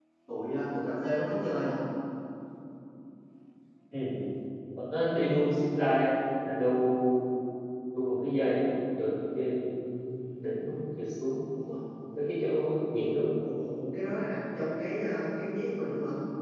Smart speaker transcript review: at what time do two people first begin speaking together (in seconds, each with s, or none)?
none